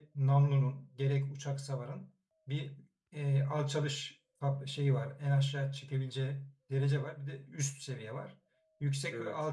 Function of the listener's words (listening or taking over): listening